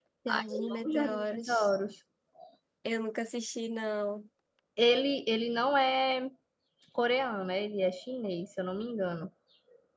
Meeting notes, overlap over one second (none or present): present